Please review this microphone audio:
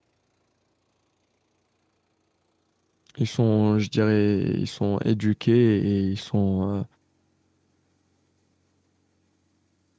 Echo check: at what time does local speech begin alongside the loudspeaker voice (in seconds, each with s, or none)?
3.2 s